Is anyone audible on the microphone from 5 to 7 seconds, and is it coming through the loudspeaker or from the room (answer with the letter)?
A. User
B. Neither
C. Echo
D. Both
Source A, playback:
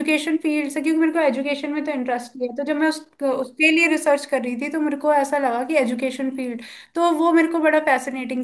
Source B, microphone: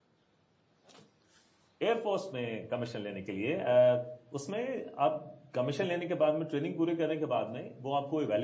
A